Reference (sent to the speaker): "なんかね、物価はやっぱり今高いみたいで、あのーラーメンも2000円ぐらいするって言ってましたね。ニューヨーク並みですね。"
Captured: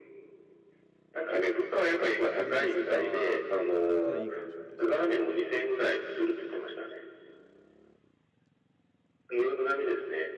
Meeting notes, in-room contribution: present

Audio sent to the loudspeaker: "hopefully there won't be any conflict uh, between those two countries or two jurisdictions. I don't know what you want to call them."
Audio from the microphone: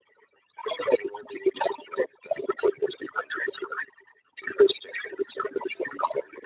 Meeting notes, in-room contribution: none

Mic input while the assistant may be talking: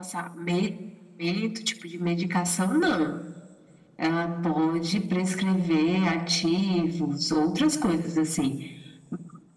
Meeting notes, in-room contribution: none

